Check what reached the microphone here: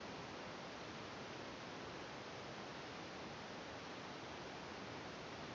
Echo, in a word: none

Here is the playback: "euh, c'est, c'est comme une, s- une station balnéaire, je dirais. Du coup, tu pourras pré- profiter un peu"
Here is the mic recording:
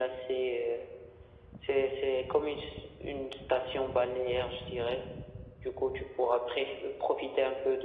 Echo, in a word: present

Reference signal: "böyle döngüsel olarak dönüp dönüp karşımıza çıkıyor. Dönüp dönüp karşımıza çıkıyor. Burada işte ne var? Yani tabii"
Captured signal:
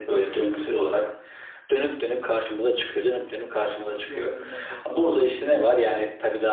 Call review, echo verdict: present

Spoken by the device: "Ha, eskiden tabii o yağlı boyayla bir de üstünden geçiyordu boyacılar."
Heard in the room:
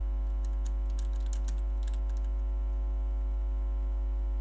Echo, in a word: none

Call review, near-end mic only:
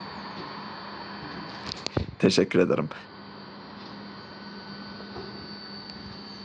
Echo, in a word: none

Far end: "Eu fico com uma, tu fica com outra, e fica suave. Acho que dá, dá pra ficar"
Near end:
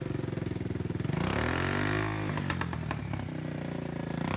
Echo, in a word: none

